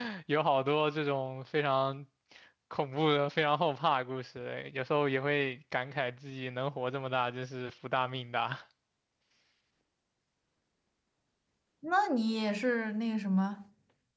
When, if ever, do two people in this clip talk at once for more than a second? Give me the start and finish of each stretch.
none

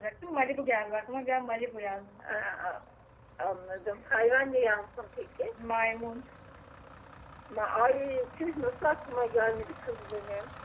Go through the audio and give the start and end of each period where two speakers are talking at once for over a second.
none

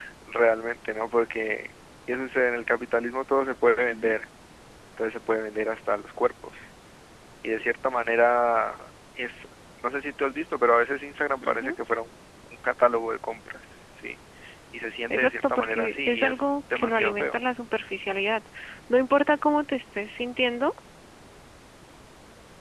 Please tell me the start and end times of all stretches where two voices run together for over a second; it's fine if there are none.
15.1-17.3

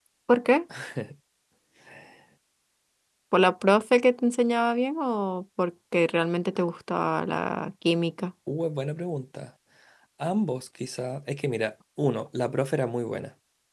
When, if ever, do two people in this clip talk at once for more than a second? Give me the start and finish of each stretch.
none

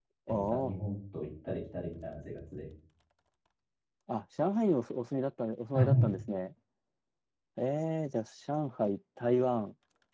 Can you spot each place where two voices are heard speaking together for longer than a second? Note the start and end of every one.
none

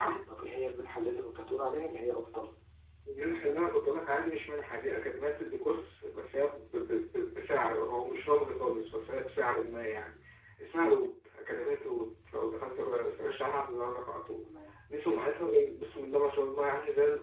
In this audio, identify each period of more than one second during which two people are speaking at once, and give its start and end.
none

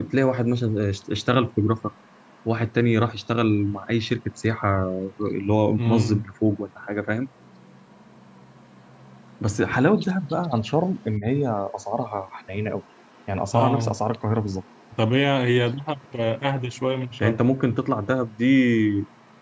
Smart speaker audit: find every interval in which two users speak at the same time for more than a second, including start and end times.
none

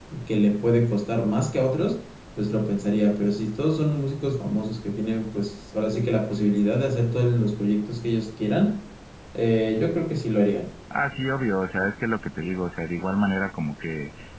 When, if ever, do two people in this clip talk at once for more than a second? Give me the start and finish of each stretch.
none

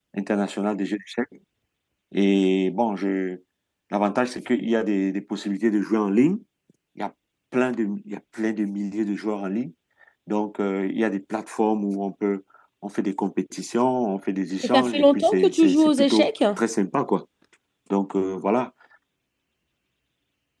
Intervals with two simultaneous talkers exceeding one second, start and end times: 14.6-16.3

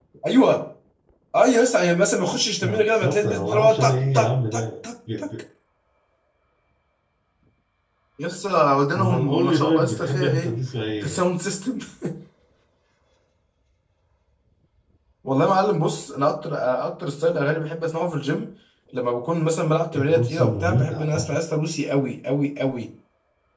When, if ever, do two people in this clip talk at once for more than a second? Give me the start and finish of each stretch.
2.6-4.6, 8.9-10.5, 19.9-21.4

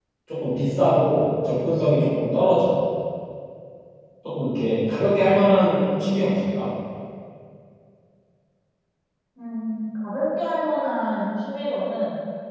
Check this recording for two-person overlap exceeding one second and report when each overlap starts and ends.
none

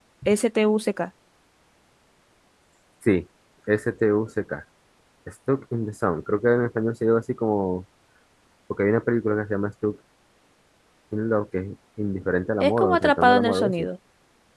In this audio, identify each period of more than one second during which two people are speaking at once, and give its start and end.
12.6-13.9

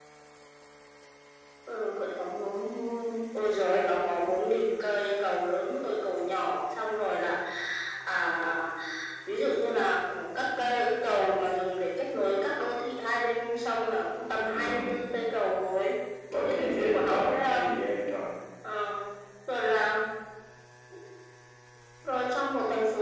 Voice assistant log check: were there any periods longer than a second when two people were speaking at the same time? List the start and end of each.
16.3-17.7

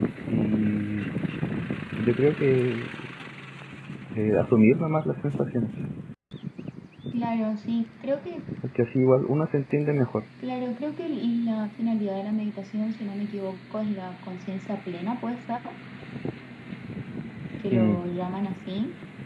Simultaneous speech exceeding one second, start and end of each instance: none

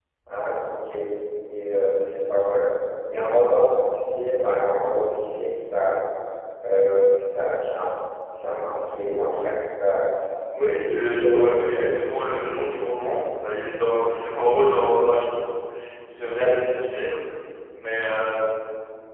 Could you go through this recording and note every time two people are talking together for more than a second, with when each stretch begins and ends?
10.6-11.9

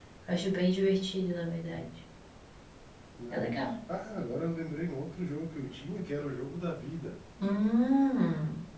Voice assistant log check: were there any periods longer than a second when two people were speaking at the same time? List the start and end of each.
none

